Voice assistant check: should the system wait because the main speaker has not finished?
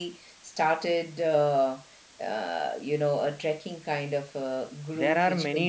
No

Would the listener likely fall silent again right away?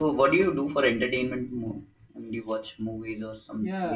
No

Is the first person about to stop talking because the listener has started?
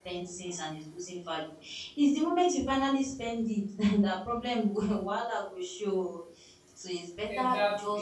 No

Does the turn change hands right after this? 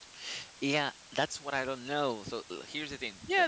Yes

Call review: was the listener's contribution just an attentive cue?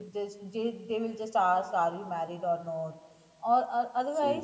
Yes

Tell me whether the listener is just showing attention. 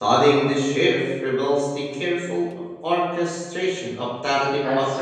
No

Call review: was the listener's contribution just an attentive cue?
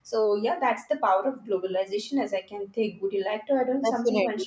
No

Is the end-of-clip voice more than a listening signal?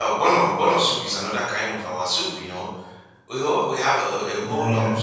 No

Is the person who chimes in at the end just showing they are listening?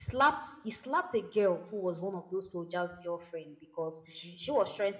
Yes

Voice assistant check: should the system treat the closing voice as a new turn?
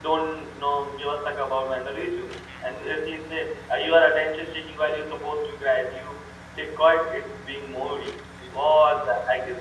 No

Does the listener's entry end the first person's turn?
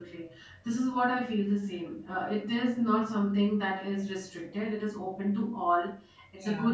No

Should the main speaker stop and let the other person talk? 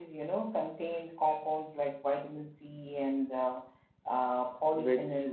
Yes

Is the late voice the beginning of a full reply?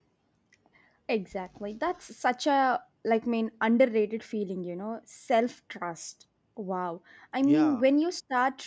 No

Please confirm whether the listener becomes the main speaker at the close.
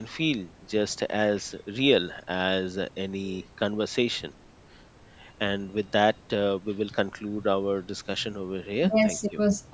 Yes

